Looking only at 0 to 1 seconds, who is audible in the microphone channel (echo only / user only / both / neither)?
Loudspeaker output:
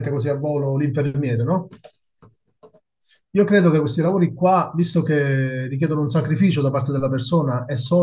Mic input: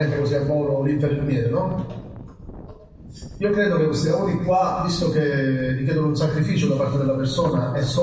echo only